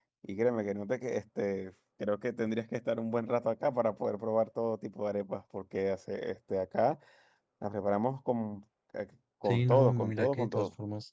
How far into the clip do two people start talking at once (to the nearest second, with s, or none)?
9 s